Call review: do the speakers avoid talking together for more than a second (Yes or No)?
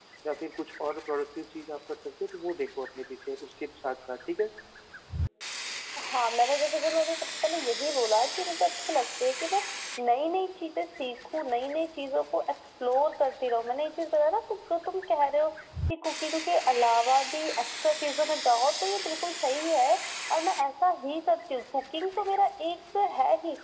Yes